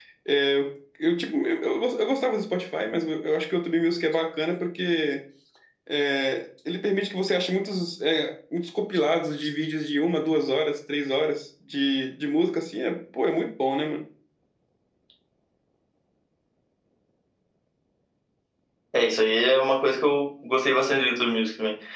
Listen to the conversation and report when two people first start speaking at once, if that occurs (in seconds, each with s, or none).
none